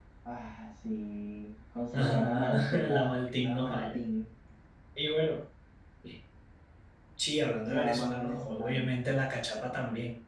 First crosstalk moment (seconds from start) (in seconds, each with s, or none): 1.9 s